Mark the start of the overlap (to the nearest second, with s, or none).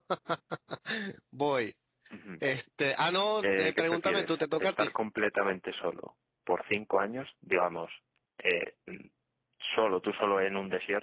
3 s